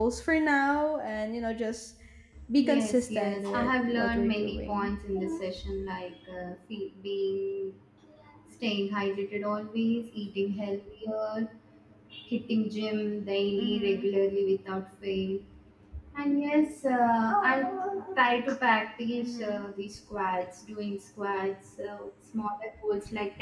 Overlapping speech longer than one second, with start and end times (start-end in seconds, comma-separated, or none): 2.7-4.9